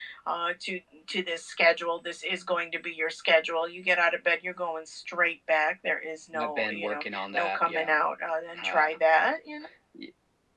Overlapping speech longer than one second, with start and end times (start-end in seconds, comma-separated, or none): 6.4-8.0